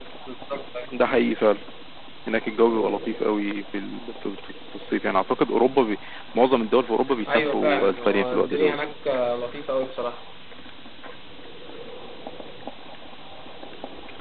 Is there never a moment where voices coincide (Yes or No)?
No